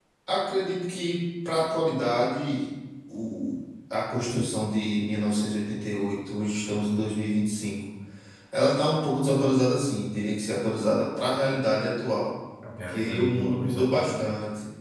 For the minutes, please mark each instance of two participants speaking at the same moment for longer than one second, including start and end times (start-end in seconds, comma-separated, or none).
12.9-14.3